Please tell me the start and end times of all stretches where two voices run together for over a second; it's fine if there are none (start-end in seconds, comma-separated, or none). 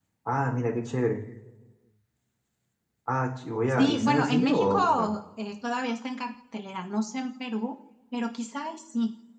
3.7-5.1